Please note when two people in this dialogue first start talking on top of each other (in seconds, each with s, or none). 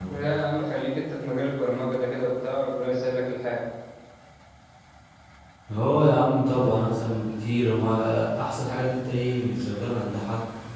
none